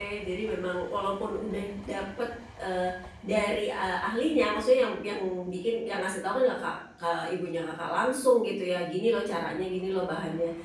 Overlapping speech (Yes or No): No